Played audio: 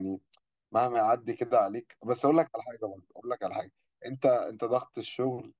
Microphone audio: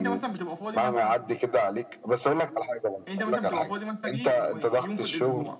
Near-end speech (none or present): present